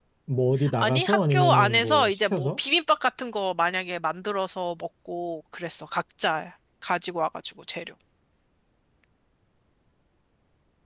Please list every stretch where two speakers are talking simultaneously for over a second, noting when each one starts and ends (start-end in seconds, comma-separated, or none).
0.8-2.6